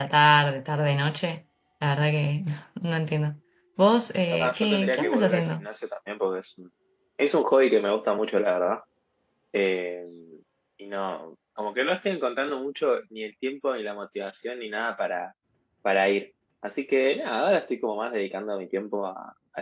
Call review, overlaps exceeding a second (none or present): present